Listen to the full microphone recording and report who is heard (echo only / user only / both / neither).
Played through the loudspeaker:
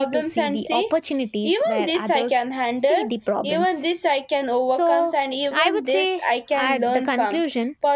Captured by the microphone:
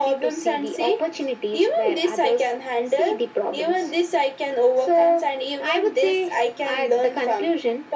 echo only